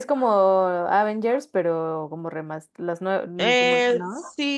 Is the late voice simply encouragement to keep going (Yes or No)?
No